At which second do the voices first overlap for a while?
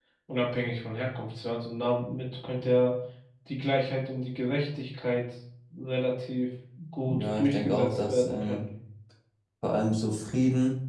7.1 s

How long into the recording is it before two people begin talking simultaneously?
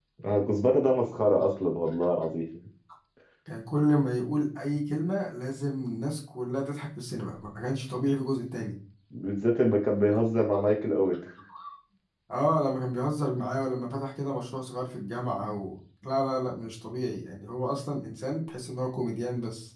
none

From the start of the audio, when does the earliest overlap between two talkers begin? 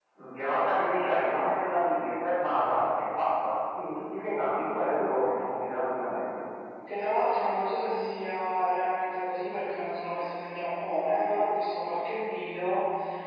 none

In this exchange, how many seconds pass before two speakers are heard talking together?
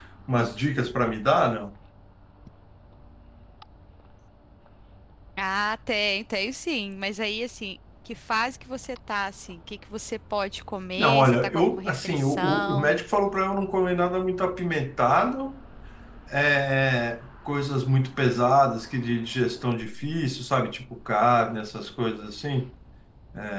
11.0 s

